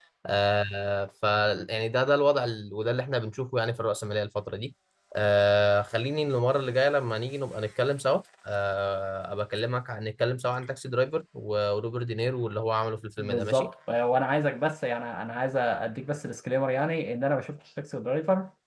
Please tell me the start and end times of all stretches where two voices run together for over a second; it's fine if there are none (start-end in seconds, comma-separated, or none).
none